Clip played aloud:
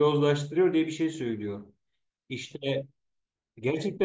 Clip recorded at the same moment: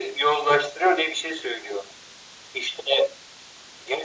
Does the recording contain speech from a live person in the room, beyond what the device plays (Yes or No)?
No